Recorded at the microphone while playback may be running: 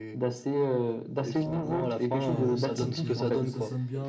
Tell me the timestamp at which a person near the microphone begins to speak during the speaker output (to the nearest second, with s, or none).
2 s